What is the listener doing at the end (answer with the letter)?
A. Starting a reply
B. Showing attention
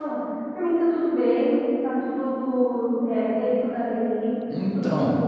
B